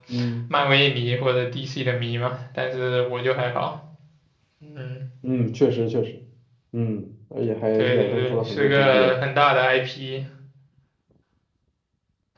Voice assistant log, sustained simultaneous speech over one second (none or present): present